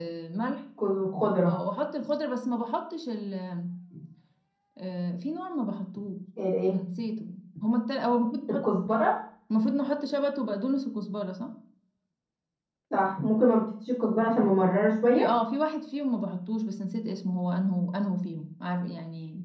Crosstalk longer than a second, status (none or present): none